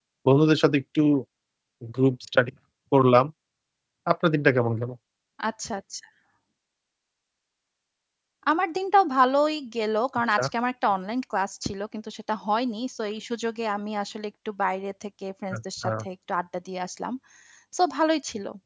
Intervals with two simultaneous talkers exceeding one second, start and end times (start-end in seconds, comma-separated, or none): none